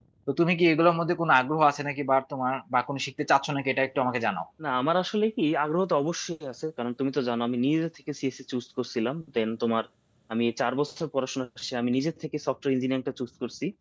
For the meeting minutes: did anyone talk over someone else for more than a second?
No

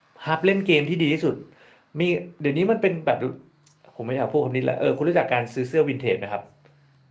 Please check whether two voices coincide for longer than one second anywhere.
No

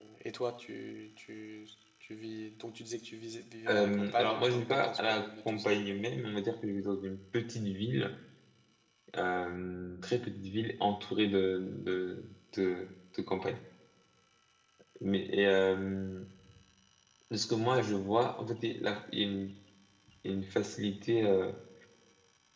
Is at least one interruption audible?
Yes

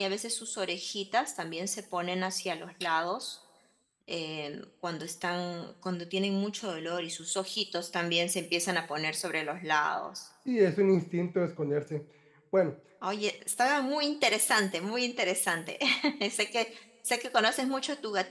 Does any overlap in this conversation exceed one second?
No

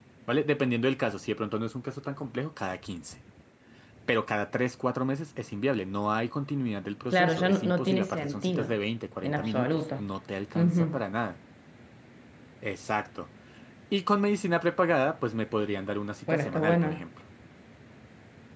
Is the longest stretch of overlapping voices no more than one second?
No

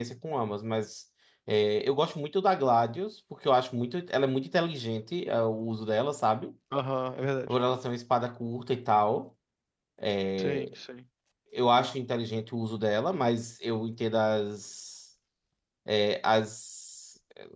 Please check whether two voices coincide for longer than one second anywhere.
No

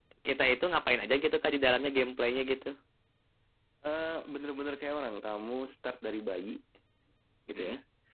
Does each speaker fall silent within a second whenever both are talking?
Yes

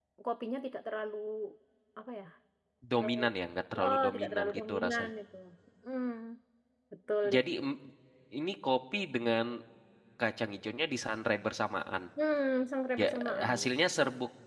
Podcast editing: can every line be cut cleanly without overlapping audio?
No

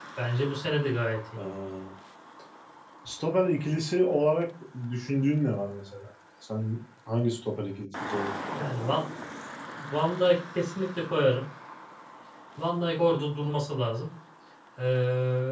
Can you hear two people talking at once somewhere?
No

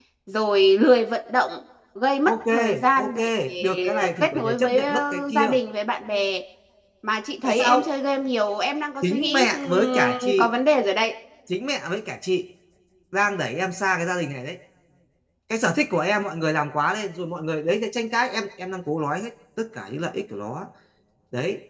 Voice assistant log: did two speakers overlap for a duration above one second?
Yes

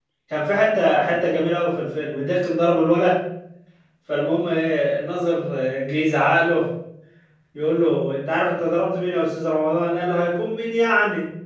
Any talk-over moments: No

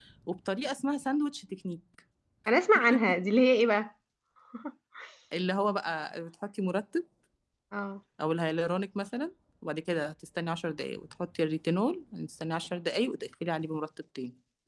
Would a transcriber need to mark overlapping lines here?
No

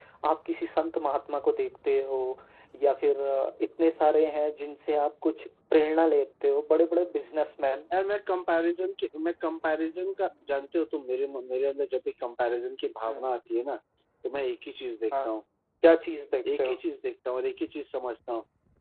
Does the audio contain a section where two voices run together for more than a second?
No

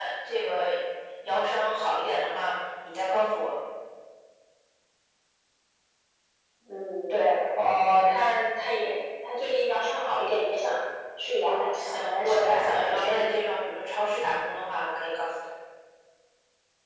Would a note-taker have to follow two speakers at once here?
Yes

